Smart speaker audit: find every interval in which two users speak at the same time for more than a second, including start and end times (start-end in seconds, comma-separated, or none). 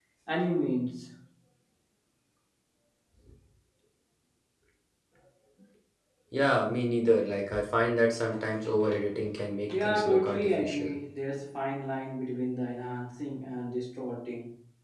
9.7-10.9